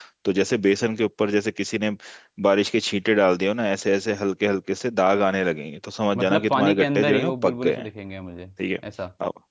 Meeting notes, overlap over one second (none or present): present